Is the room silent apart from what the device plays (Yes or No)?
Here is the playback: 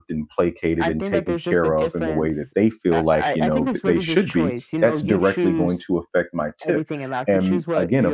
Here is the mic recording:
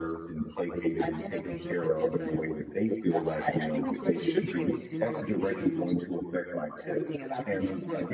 Yes